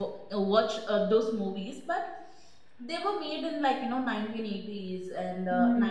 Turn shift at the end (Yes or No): No